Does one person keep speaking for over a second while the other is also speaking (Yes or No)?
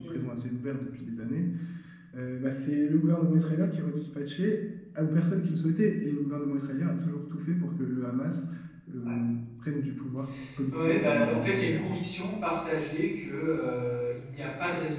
Yes